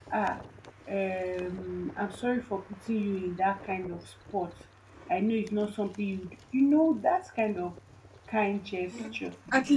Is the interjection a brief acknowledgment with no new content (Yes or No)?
No